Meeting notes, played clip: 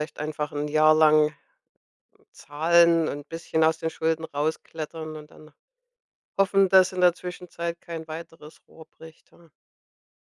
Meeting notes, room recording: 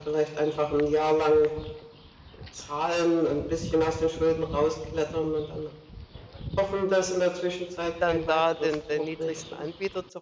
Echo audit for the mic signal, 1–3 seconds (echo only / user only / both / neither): echo only